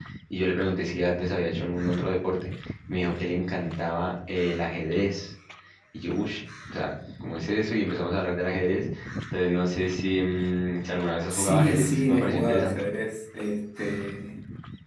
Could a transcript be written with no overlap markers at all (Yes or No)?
No